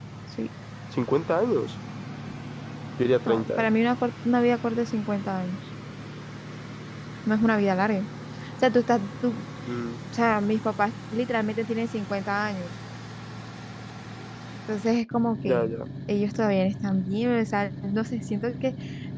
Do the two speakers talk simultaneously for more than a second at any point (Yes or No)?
No